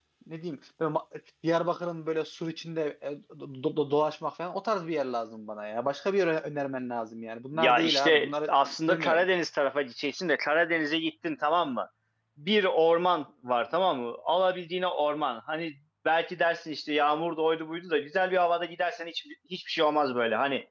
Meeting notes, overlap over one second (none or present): present